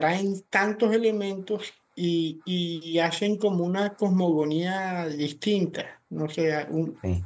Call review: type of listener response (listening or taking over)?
listening